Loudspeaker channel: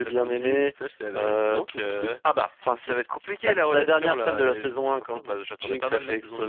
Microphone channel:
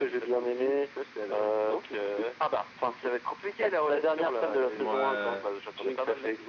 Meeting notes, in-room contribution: present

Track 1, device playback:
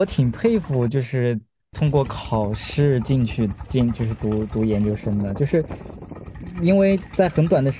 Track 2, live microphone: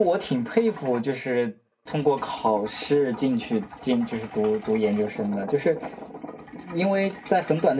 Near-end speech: none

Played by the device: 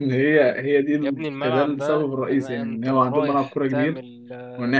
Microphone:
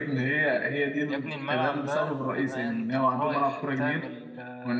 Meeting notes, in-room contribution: none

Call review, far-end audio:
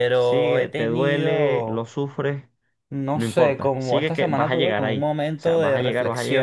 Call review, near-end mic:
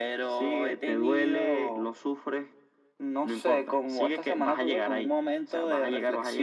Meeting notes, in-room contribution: none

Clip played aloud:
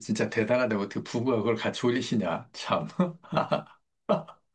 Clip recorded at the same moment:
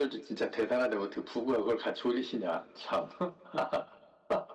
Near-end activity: none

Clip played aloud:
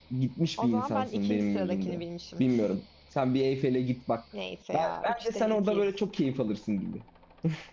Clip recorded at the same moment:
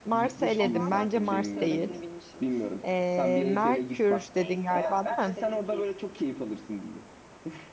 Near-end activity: present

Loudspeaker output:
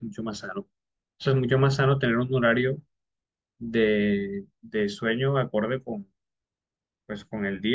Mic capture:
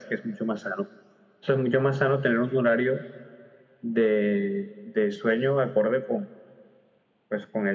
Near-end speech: none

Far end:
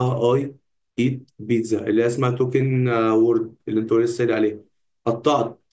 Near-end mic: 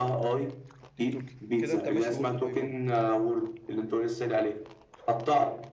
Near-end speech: present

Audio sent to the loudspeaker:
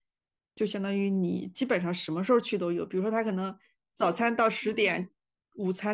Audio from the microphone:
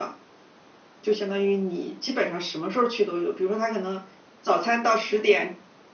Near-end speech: none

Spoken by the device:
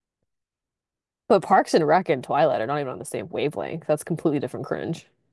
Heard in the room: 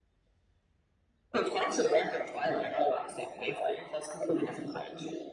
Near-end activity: none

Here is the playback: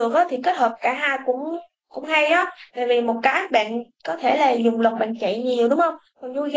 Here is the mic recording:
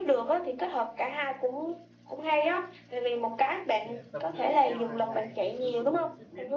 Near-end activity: present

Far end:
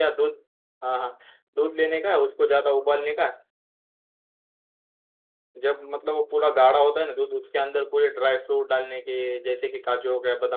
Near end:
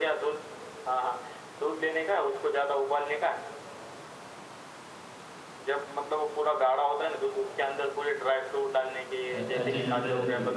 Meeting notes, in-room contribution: present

